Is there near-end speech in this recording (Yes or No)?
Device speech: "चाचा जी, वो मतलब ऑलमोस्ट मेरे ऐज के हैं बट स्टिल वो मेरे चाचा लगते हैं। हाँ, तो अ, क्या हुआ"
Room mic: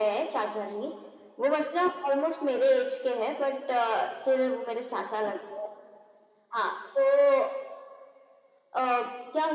No